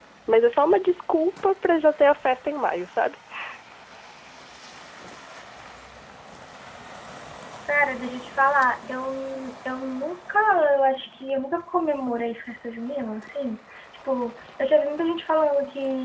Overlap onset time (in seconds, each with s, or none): none